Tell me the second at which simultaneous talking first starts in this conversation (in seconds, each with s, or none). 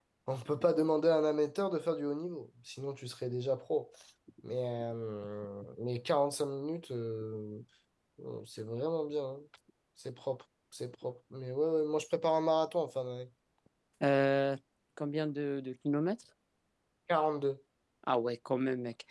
none